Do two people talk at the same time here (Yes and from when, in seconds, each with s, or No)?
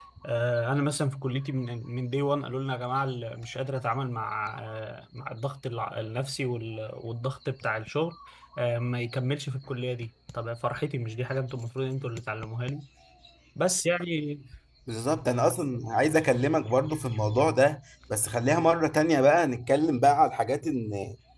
No